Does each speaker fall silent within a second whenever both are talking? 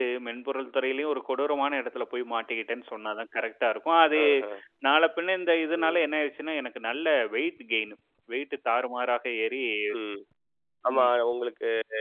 Yes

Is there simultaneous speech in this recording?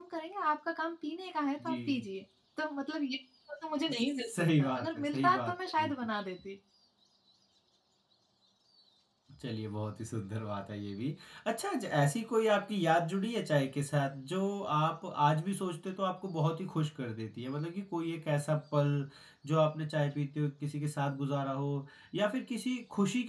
Yes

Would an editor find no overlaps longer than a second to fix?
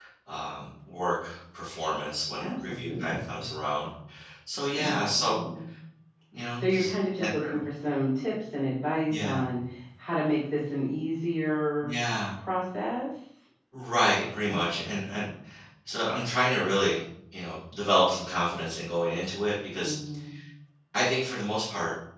No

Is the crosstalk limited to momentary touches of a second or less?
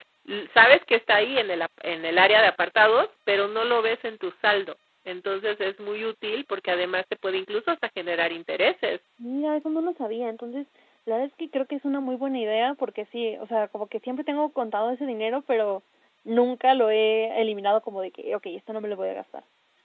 Yes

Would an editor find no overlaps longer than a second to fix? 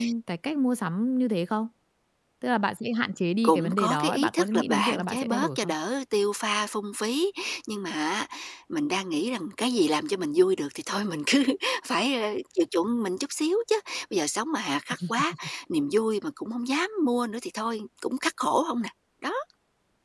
No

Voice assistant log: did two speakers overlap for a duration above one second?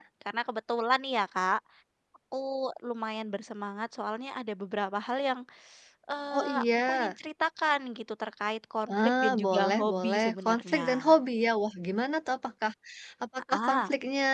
Yes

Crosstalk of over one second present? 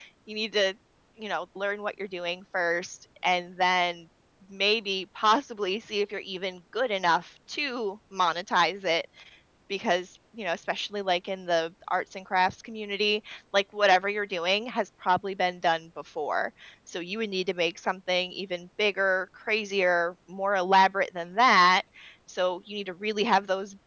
No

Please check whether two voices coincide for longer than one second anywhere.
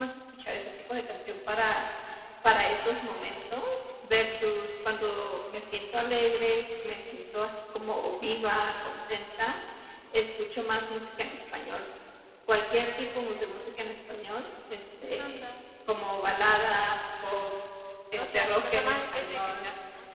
Yes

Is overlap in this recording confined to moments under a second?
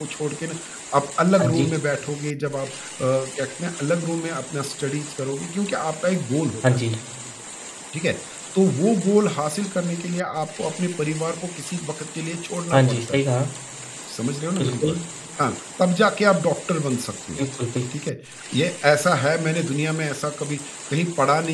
Yes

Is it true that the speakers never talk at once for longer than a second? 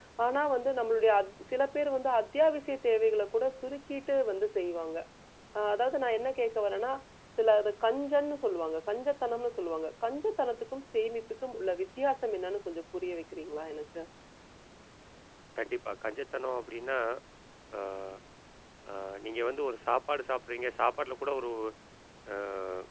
Yes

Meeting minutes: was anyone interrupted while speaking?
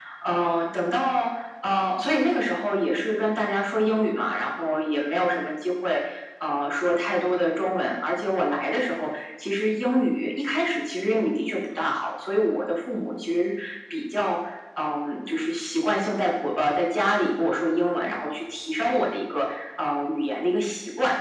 No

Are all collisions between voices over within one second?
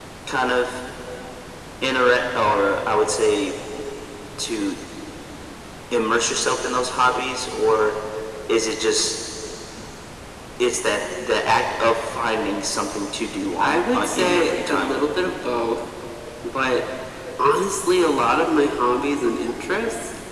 No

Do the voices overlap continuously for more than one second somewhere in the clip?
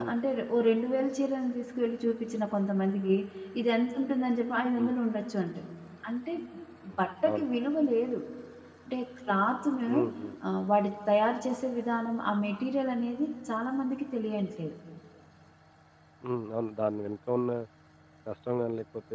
No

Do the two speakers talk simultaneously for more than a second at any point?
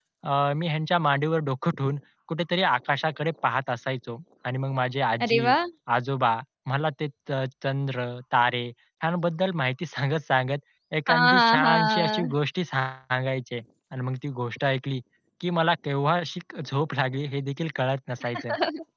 Yes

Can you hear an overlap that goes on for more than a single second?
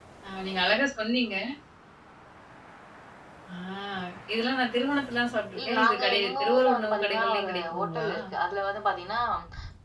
Yes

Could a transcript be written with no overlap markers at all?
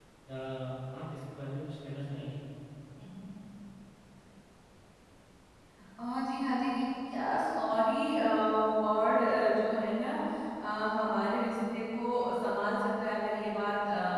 Yes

